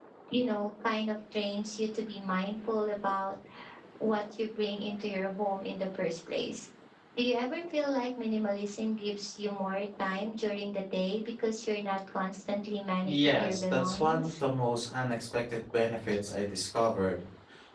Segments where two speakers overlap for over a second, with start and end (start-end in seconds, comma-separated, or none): 13.0-14.3